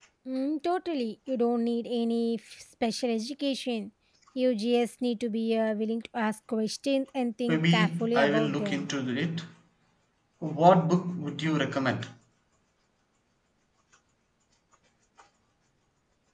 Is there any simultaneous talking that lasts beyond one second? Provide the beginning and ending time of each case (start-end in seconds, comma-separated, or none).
7.5-8.9